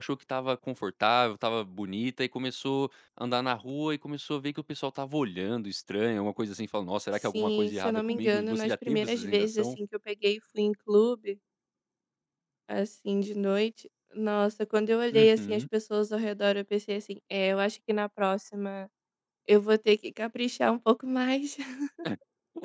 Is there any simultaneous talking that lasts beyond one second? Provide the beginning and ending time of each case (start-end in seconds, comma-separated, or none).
7.3-9.7